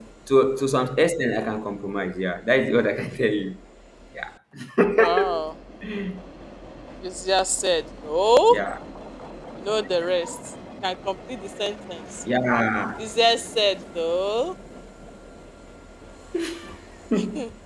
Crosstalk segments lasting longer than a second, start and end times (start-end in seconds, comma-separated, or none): none